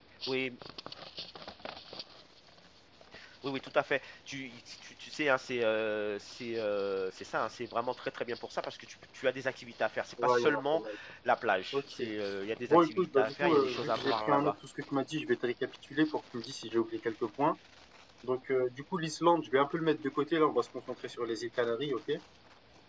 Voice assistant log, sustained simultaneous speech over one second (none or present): present